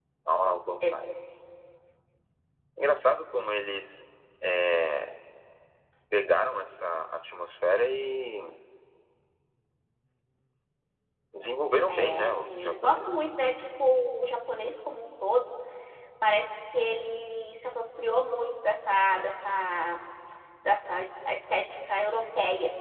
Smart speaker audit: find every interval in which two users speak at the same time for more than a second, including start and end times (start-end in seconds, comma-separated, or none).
11.9-13.4